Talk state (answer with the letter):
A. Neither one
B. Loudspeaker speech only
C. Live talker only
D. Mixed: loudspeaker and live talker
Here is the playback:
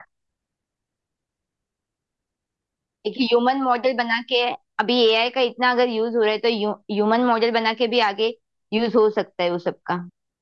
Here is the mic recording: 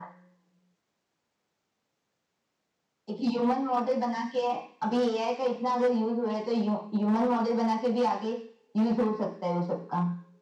B